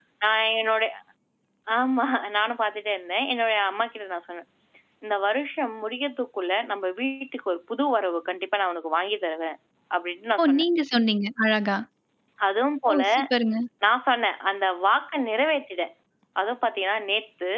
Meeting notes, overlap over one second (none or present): none